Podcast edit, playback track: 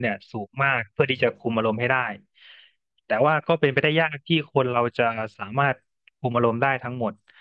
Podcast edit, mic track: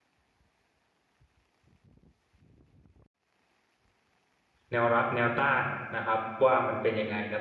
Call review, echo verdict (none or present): none